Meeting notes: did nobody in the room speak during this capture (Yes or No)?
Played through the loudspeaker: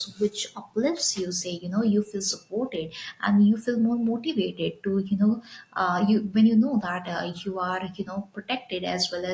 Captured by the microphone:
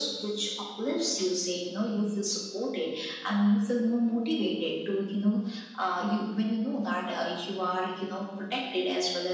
Yes